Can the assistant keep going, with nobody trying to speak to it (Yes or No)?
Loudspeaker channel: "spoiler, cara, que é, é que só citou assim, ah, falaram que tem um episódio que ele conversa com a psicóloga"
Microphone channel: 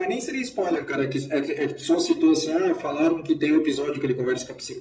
Yes